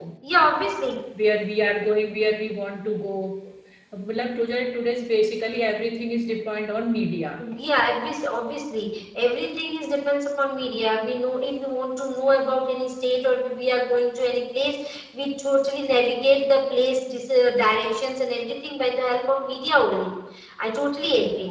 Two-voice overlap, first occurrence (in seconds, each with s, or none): none